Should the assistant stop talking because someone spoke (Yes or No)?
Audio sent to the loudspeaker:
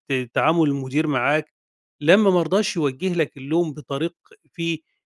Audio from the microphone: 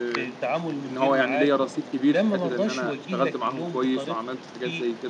Yes